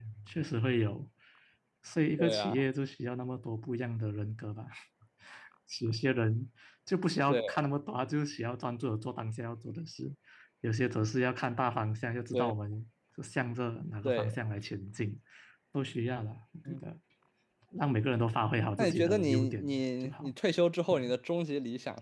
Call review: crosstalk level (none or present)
present